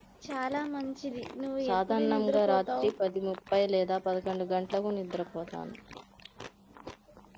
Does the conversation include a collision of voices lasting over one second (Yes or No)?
Yes